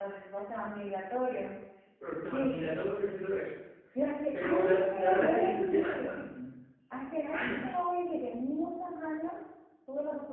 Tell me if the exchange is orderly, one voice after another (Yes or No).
No